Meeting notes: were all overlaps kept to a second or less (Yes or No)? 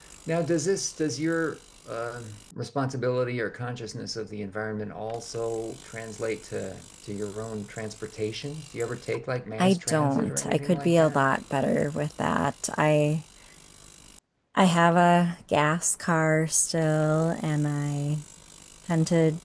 No